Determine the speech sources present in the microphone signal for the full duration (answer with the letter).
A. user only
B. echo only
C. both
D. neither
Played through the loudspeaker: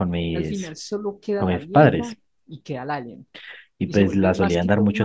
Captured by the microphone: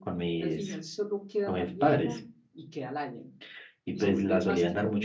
B